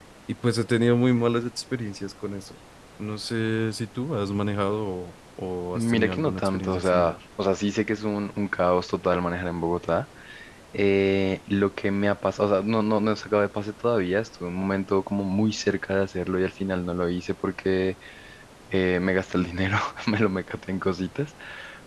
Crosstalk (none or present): present